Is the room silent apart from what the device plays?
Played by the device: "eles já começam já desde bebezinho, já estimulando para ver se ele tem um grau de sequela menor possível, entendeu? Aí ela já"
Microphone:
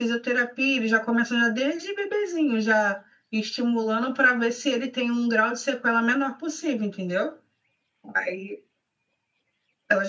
Yes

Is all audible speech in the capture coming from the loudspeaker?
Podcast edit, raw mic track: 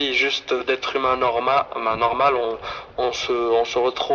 Yes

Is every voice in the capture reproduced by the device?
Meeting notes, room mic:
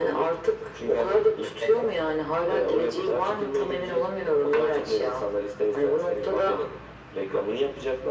Yes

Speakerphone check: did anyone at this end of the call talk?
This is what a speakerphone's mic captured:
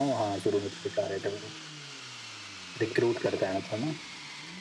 No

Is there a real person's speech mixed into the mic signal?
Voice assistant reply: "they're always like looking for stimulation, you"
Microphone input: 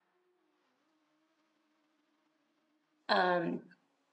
Yes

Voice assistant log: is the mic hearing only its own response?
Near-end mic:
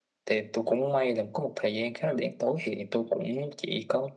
Yes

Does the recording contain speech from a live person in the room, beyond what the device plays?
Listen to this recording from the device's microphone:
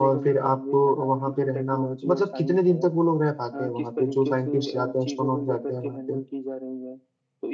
Yes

